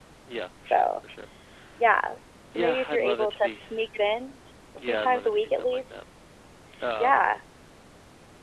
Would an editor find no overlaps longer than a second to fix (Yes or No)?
No